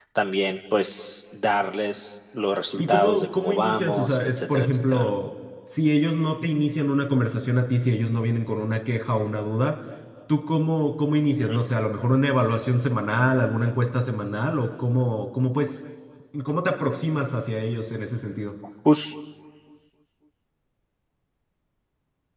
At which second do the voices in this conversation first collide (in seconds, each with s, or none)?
2.8 s